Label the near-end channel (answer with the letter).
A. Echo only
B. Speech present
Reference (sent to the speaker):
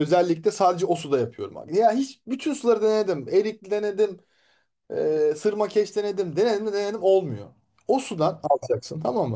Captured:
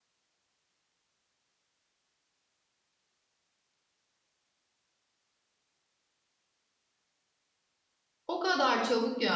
B